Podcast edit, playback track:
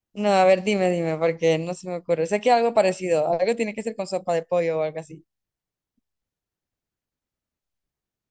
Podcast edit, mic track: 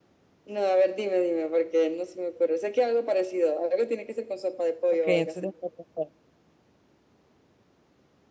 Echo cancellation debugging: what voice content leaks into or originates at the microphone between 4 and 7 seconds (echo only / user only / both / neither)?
both